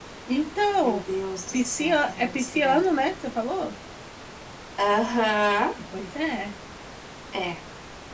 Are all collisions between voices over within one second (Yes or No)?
No